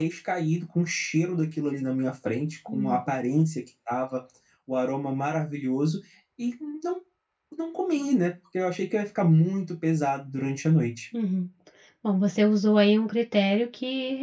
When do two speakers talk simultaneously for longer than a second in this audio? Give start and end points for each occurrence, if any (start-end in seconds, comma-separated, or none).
none